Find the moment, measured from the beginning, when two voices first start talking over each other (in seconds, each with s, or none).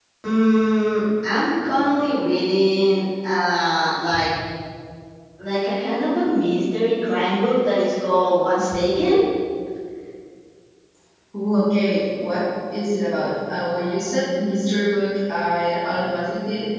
none